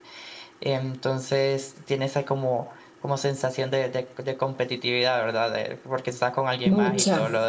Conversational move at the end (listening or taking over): listening